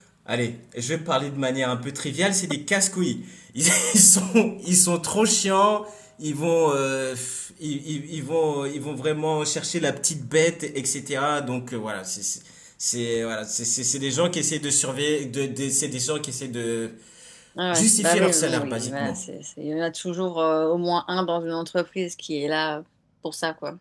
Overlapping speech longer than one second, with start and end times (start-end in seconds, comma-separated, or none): 17.7-19.3